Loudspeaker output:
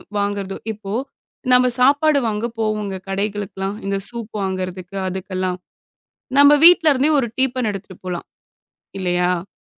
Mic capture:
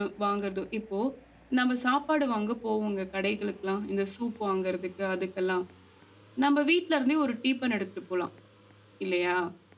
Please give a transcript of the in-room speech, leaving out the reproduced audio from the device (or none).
none